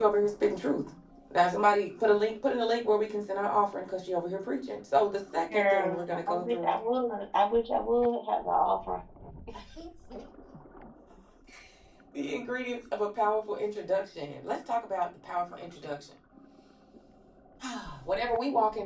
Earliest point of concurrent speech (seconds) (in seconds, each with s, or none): 5.5 s